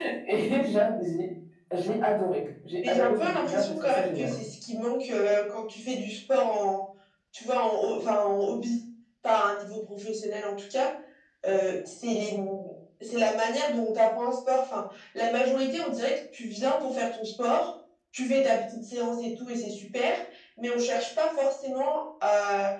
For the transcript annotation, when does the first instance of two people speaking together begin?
2.8 s

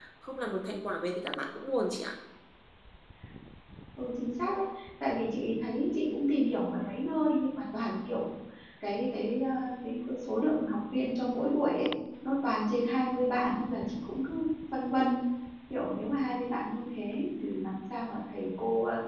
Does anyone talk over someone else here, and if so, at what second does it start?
none

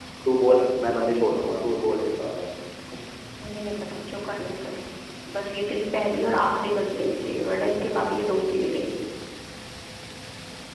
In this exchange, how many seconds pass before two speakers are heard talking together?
none

